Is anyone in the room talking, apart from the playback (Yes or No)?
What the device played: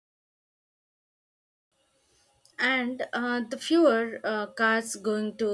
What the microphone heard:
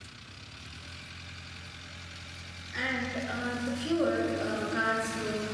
No